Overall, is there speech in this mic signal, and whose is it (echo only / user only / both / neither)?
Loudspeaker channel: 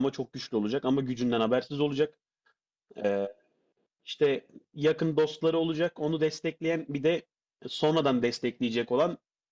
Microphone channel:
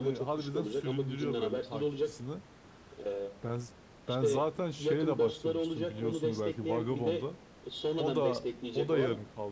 both